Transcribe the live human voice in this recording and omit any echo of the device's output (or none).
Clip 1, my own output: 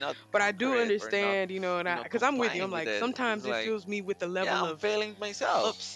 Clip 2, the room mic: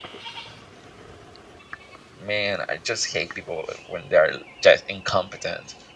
Man, I just hate people when they're just incompetent.